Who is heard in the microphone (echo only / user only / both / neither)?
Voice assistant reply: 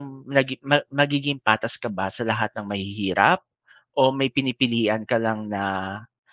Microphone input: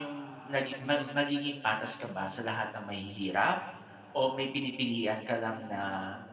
both